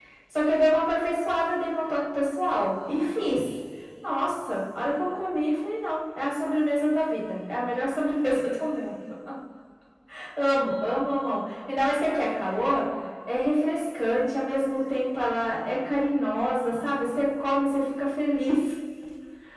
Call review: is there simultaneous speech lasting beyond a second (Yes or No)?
No